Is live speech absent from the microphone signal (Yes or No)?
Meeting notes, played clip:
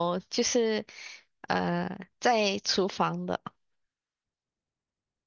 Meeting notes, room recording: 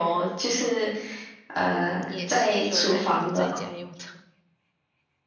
No